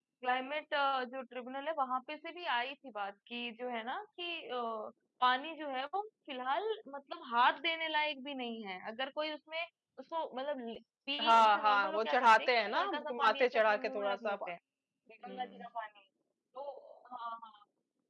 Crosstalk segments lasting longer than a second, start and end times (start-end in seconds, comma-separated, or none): 11.2-14.5